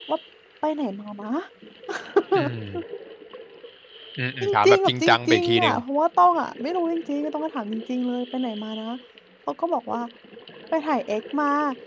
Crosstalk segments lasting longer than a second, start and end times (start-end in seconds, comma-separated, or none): 4.4-5.8